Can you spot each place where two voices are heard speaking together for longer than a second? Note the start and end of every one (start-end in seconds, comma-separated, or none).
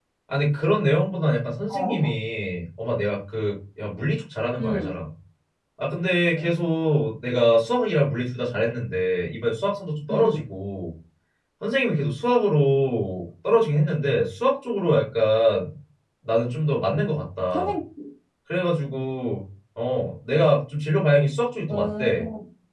none